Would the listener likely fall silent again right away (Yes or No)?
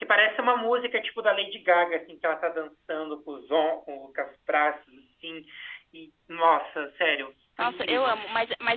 No